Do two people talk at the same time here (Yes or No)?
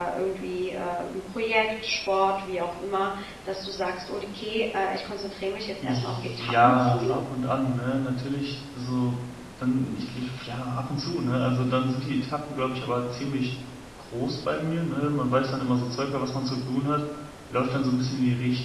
Yes